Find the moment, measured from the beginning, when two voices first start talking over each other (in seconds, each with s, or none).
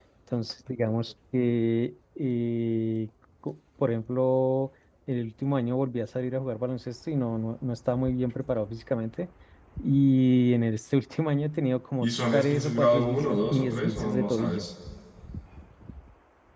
12.0 s